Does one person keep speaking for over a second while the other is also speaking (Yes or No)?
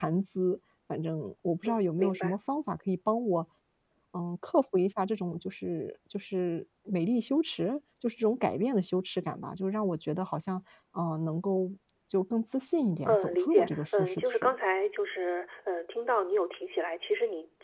Yes